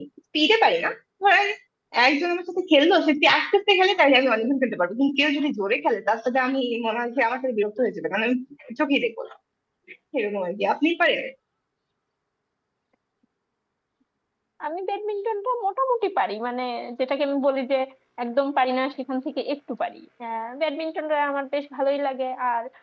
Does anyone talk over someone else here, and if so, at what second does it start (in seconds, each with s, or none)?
none